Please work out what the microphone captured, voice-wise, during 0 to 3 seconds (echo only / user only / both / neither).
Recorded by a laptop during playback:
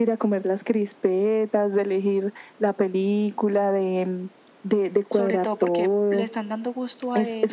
echo only